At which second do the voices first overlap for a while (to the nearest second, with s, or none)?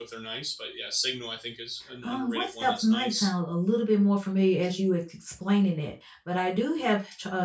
2 s